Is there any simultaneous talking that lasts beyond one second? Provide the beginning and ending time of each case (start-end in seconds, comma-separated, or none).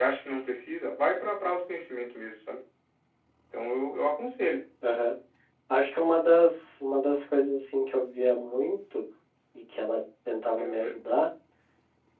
none